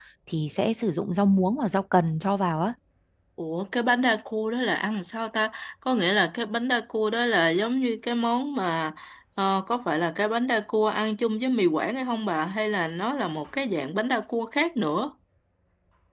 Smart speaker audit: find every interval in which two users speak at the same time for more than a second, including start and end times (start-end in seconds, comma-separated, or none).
none